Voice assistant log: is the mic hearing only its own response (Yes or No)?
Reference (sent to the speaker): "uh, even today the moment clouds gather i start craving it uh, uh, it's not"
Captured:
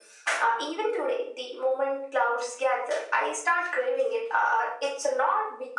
Yes